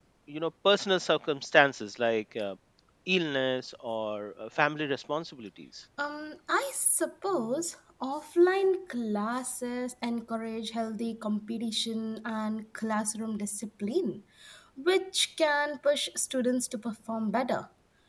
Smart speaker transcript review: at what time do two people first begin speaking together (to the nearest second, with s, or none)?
none